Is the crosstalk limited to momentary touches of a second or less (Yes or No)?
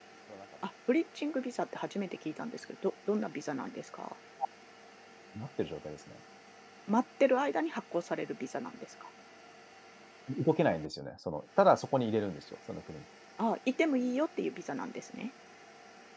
Yes